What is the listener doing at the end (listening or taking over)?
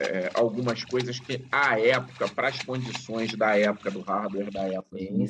listening